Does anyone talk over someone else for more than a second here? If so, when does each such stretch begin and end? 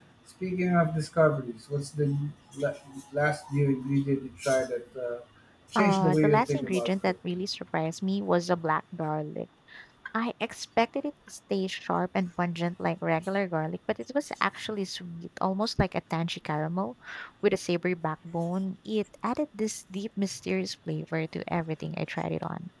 5.8-7.1

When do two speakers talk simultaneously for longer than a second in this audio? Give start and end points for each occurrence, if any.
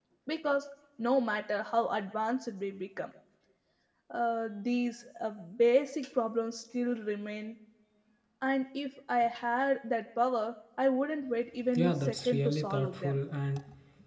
11.8-13.2

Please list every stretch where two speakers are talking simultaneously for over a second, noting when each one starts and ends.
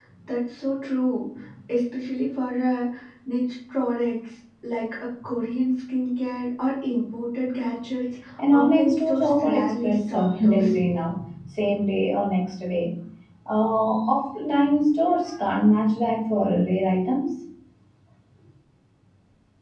8.5-10.8

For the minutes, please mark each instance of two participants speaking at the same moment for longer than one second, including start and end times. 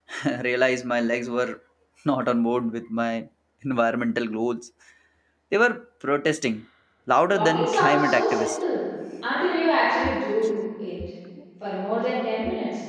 7.3-8.5

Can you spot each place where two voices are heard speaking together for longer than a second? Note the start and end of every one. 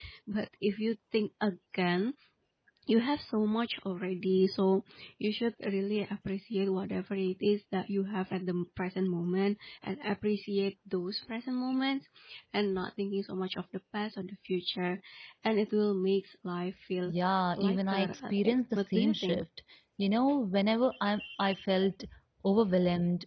17.6-19.4

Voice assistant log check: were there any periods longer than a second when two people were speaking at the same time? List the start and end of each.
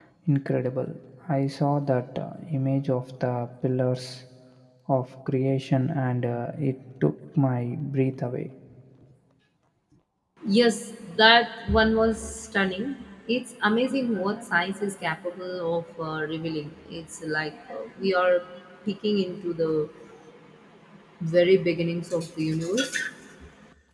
none

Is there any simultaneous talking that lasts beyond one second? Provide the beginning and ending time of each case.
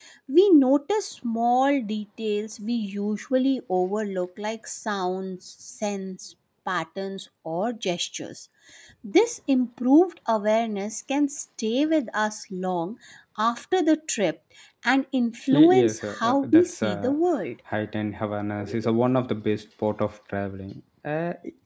15.5-17.1

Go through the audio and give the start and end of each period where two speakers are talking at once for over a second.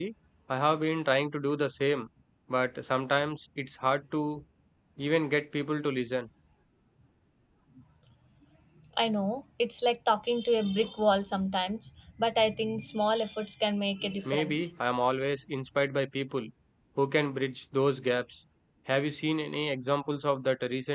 none

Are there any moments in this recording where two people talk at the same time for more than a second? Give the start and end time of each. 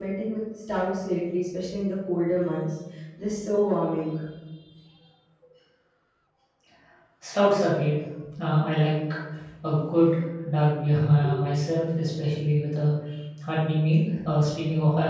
none

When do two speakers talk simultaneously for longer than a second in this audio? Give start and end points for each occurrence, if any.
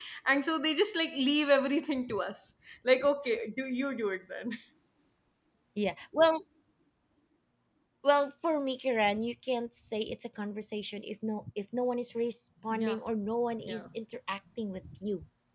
none

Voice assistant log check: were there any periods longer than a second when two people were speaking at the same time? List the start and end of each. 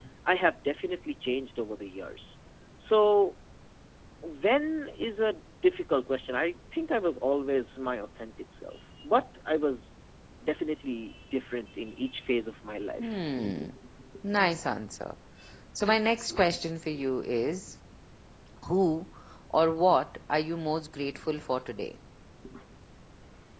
none

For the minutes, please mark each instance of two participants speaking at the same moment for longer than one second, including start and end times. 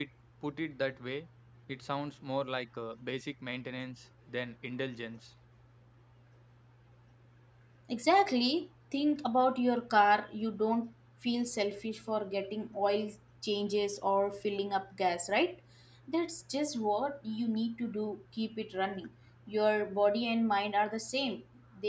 none

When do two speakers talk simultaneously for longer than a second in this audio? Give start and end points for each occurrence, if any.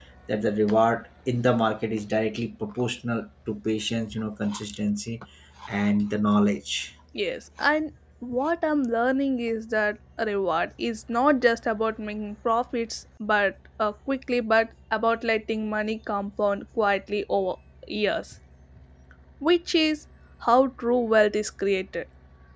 none

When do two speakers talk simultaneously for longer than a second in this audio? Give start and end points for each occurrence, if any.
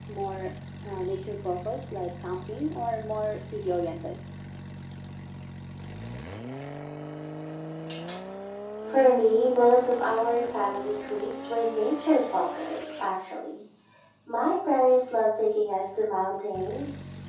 none

